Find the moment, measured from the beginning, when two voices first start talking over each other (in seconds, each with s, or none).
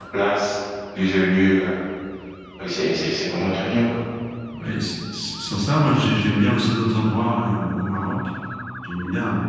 none